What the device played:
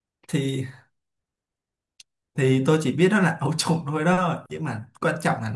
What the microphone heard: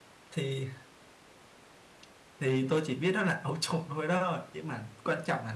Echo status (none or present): present